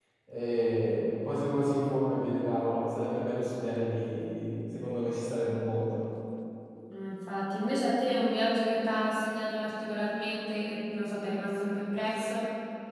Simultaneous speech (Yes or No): No